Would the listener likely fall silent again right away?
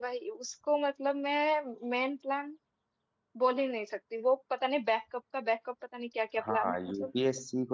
No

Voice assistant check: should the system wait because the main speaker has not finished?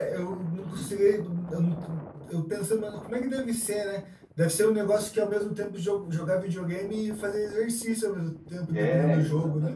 No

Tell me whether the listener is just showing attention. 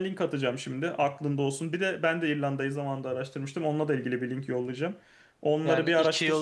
No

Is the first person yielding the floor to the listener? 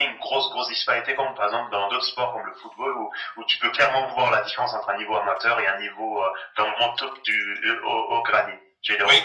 Yes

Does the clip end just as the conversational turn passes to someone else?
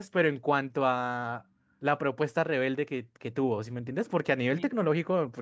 No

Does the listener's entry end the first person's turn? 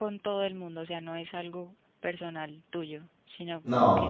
No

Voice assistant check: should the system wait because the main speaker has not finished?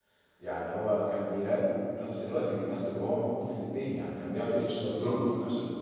Yes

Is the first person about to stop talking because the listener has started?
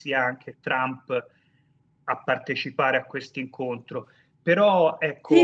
Yes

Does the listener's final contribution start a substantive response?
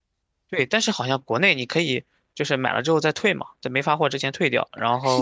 Yes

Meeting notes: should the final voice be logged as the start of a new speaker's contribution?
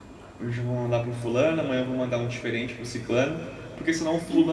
No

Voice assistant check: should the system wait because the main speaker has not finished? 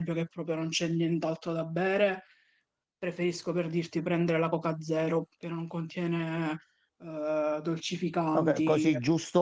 No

